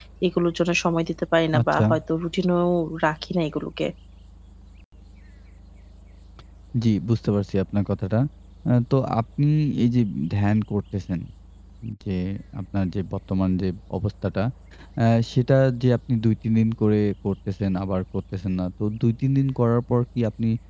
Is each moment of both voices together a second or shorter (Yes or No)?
Yes